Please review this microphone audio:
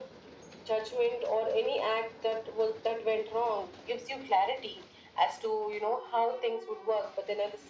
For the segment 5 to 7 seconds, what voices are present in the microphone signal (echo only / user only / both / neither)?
echo only